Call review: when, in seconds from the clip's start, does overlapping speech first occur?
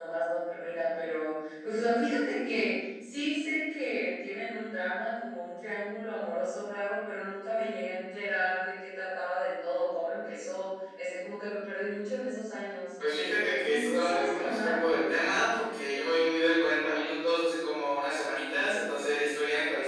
13.4 s

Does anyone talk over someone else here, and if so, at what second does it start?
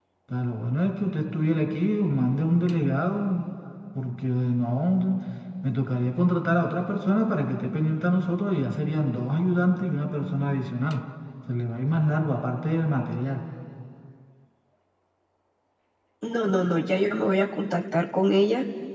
none

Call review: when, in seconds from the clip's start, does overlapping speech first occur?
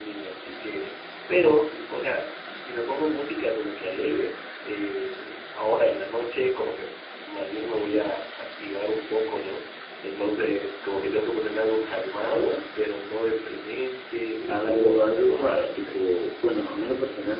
14.4 s

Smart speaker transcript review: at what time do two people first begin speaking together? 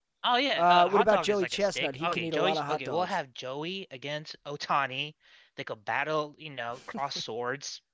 0.5 s

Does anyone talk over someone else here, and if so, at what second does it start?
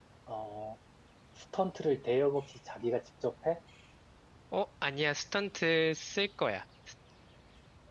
none

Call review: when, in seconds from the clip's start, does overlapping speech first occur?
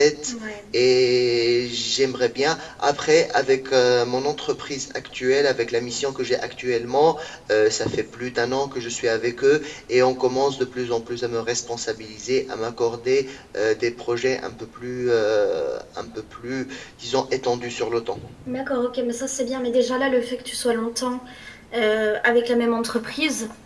none

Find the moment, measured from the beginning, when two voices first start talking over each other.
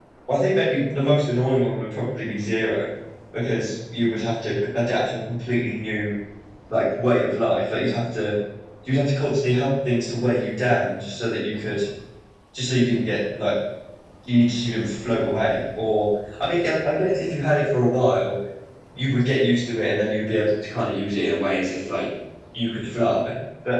none

